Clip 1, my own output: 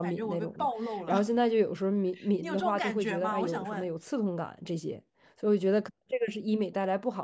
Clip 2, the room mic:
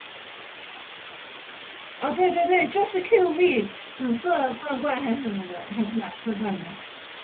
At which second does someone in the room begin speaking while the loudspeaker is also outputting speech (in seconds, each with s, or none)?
2.0 s